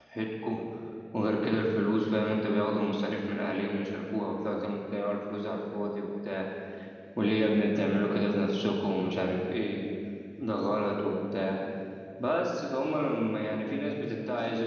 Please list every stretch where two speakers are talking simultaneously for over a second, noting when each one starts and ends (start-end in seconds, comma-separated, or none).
none